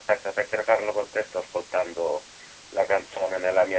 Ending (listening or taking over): listening